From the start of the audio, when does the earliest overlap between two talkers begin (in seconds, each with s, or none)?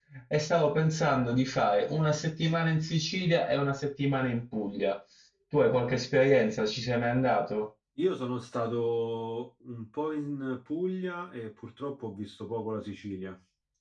none